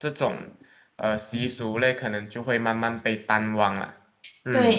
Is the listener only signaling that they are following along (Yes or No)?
No